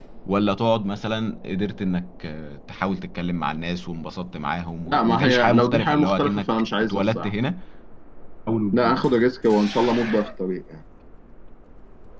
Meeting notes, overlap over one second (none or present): present